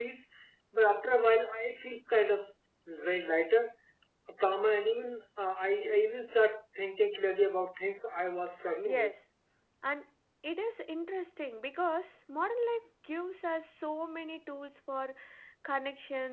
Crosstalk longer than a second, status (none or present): none